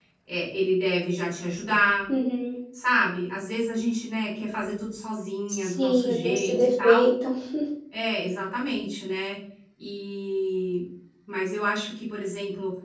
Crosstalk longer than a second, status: present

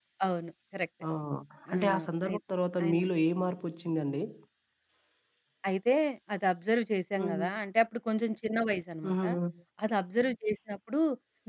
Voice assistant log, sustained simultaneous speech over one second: none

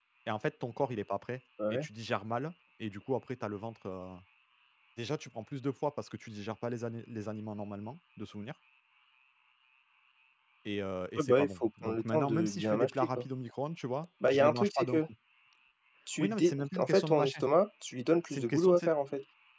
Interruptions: present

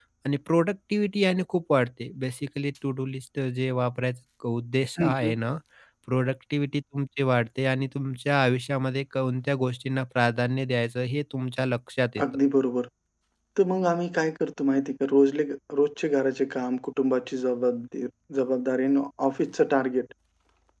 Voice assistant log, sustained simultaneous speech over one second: none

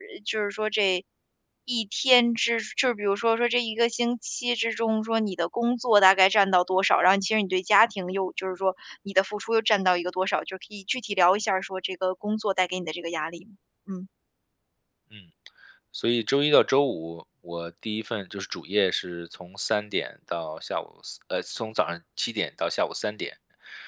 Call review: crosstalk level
none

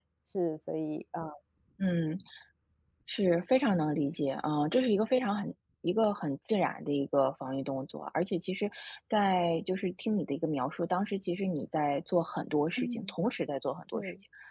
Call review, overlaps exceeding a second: none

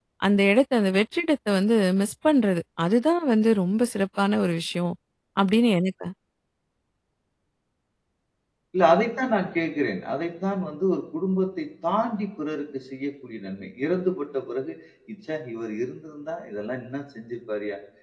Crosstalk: none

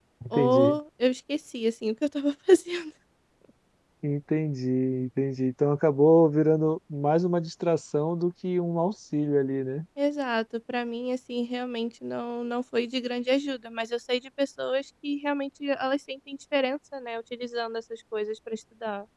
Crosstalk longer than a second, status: none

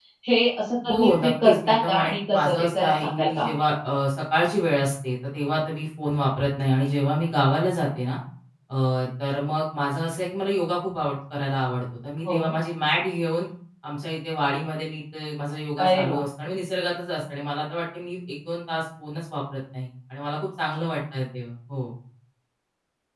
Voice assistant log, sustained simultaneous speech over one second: present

